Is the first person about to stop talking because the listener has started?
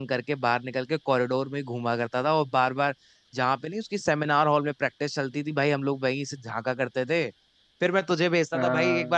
No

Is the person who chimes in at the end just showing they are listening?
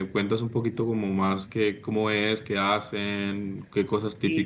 No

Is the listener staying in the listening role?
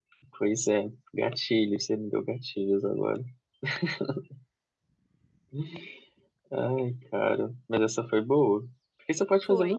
Yes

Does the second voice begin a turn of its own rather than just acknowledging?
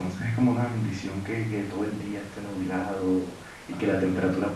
No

